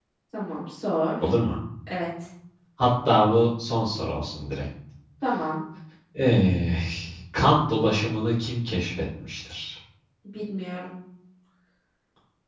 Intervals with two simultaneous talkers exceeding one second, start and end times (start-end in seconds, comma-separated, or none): none